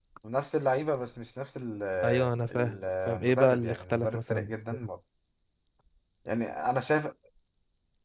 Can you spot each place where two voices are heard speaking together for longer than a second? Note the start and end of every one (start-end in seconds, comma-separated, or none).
2.5-4.9